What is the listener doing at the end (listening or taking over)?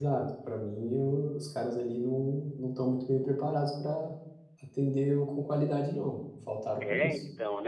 taking over